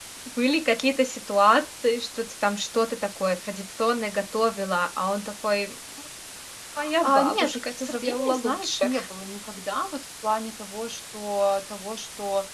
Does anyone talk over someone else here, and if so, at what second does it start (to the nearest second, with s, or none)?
7 s